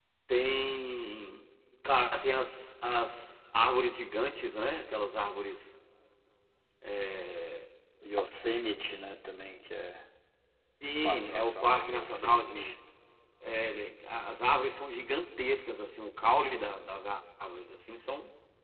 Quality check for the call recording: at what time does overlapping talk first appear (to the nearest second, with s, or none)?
11 s